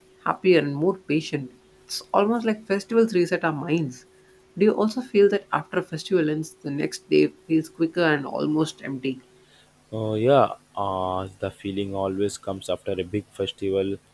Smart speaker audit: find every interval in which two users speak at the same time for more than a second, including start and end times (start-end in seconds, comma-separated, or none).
none